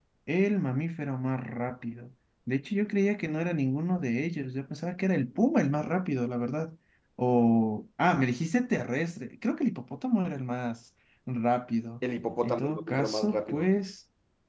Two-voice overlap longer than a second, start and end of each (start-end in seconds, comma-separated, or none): 12.4-13.7